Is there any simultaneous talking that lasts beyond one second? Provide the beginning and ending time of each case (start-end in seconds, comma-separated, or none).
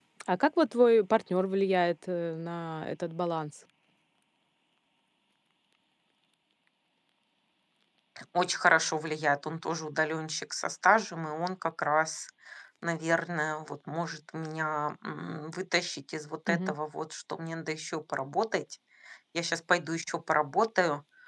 none